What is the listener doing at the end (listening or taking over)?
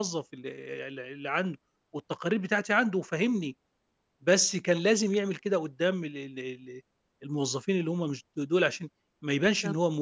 listening